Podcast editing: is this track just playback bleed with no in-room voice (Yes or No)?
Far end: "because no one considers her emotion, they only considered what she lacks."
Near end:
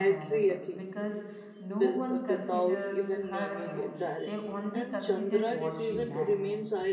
No